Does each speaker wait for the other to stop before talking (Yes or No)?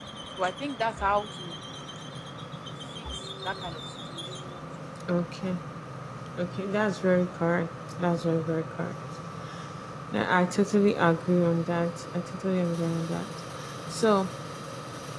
Yes